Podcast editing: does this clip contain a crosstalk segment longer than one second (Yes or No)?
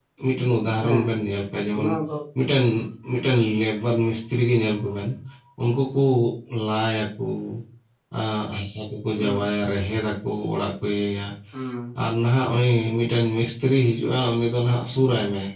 No